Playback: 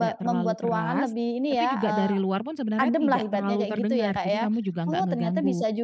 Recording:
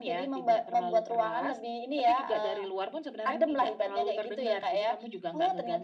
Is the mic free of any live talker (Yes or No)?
Yes